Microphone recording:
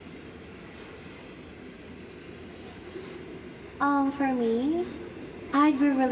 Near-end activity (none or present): present